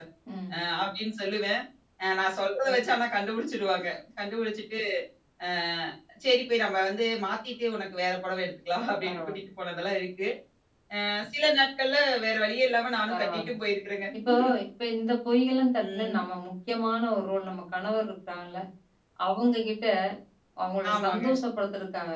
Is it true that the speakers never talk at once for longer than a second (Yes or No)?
Yes